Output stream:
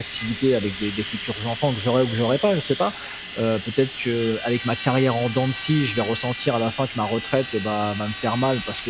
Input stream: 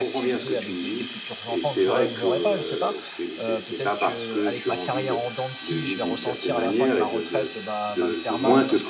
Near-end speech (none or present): present